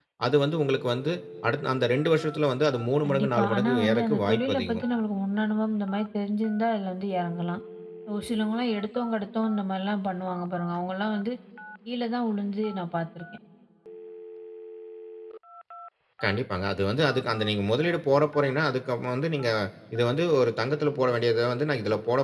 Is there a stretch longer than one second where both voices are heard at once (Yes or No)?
Yes